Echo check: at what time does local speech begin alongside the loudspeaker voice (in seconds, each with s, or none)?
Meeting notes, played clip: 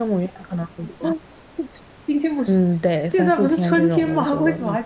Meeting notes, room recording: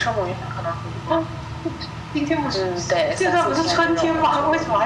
none